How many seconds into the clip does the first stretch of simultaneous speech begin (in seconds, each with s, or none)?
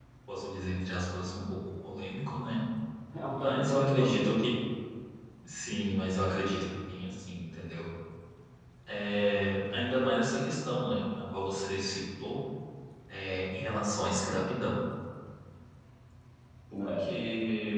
3.3 s